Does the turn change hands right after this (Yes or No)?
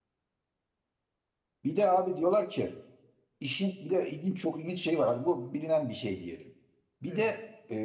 No